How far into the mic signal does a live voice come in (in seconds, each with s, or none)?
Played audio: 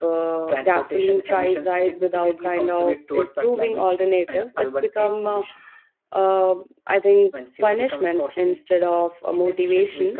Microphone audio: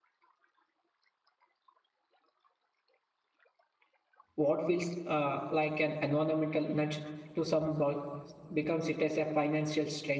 4.3 s